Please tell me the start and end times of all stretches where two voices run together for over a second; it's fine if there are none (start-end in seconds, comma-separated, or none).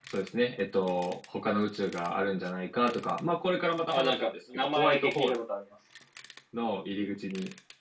3.9-5.4